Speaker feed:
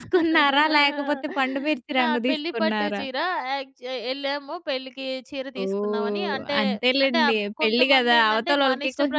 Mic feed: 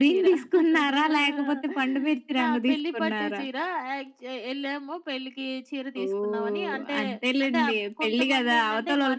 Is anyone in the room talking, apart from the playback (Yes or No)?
No